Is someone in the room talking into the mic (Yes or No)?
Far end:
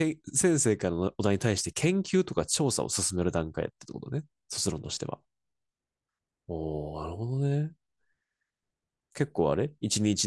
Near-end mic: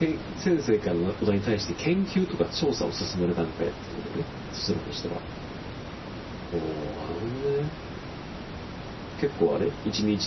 No